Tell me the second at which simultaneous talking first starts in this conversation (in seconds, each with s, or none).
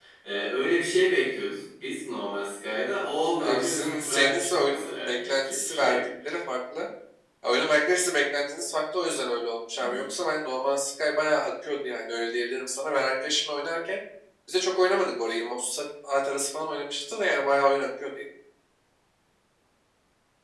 3.4 s